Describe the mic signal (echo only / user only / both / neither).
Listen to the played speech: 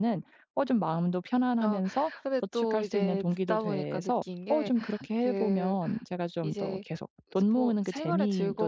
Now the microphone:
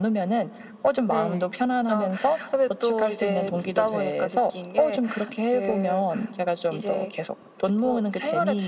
both